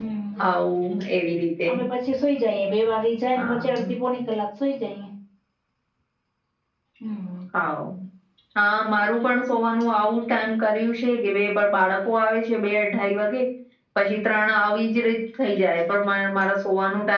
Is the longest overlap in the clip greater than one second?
No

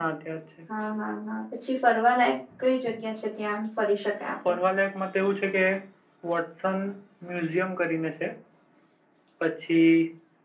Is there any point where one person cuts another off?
No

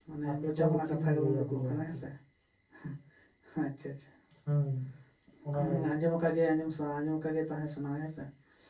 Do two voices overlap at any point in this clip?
Yes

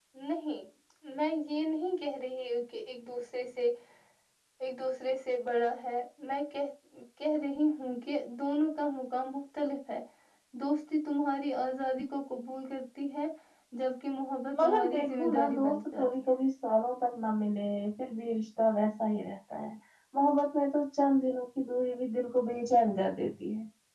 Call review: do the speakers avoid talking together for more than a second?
No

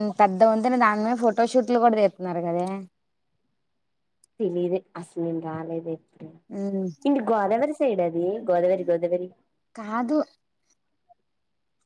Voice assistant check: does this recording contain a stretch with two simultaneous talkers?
No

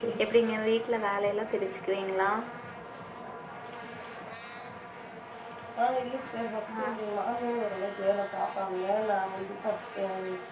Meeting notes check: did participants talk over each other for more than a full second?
No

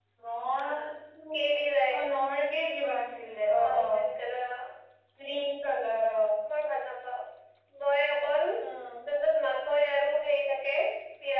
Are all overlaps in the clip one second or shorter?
Yes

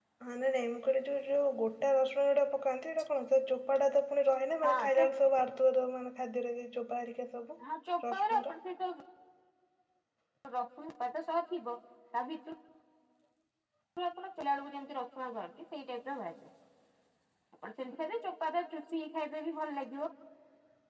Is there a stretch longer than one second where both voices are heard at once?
No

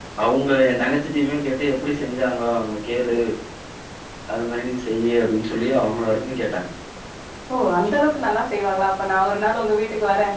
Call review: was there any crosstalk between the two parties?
No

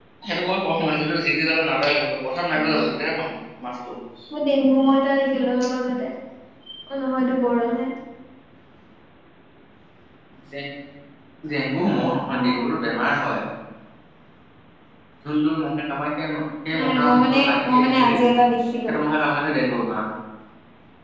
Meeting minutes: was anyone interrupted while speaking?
Yes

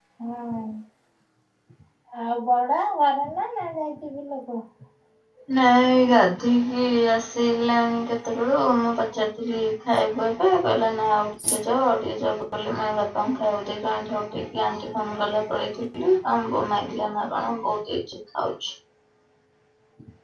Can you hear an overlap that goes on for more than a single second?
No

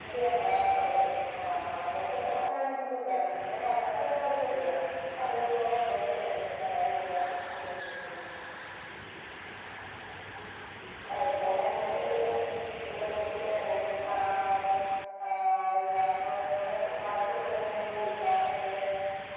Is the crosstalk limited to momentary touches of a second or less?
Yes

